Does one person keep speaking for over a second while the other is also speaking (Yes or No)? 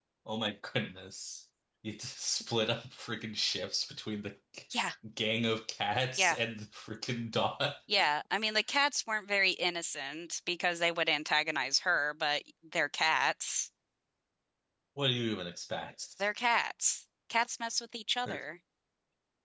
No